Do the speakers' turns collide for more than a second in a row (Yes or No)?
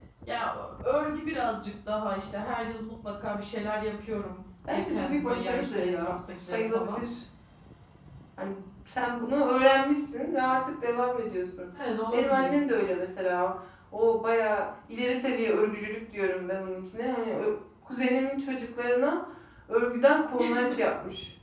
Yes